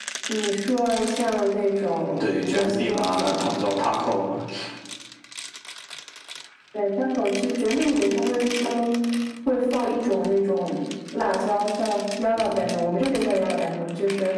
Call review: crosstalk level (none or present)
present